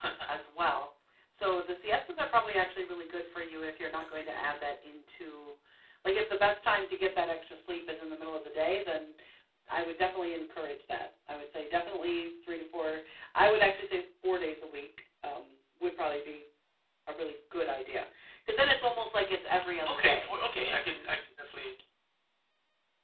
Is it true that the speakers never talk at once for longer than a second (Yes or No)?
Yes